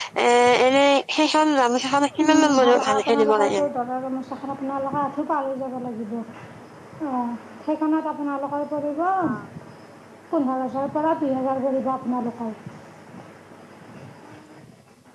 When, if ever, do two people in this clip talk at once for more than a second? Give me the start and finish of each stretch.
2.3-3.6

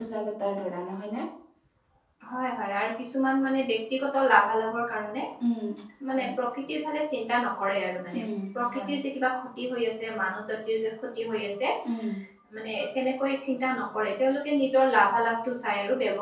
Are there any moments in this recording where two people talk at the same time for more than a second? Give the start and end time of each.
none

